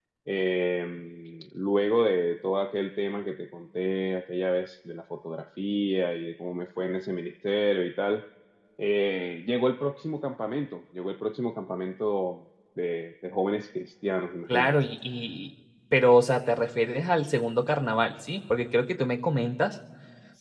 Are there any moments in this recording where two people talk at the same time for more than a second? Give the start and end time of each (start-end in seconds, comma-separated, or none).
none